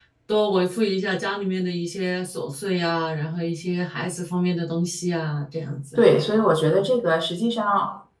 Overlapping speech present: No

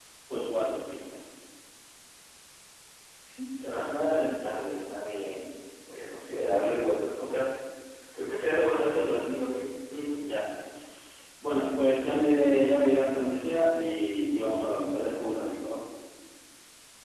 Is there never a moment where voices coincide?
Yes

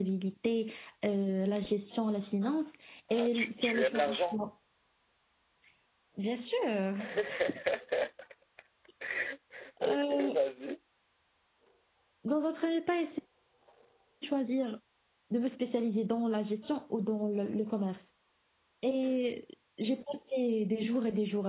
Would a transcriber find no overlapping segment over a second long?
No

